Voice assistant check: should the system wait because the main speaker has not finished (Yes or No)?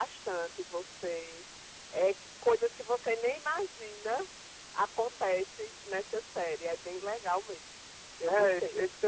No